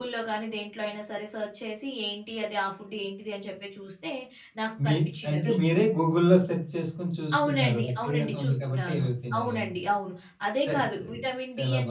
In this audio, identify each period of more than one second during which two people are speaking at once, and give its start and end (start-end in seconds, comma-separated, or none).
7.4-9.7